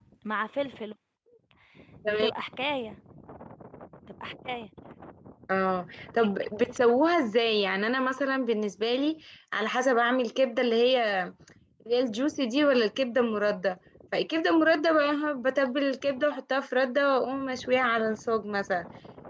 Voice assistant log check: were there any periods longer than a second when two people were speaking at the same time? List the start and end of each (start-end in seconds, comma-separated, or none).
none